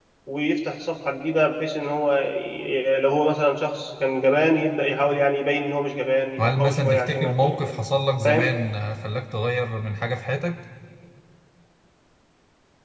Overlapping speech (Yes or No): Yes